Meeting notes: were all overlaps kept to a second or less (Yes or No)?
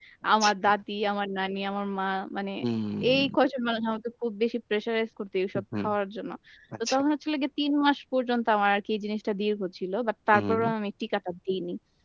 Yes